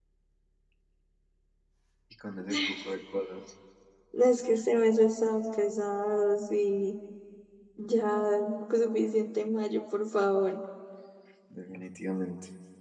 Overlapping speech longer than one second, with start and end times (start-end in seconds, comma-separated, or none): none